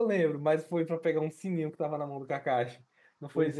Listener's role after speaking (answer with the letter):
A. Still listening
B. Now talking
B